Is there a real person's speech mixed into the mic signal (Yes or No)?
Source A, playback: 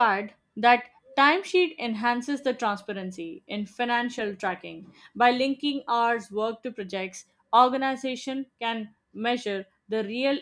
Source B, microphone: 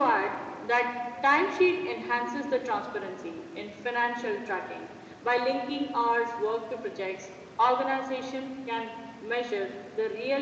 No